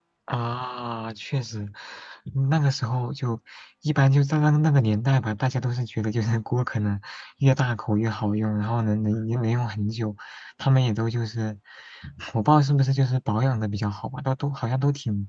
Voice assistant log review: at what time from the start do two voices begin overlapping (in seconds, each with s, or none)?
none